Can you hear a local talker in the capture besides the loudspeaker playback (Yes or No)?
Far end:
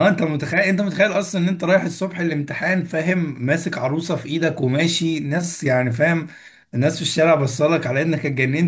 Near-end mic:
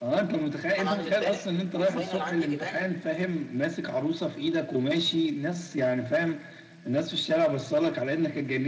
Yes